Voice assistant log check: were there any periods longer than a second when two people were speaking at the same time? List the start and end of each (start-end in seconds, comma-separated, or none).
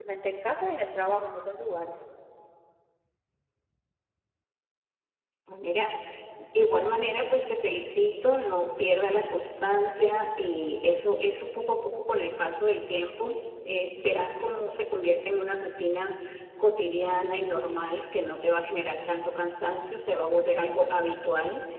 none